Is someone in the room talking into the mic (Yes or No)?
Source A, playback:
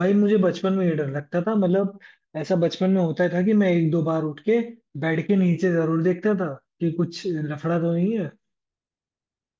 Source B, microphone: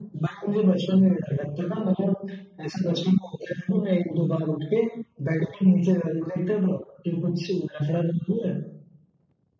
No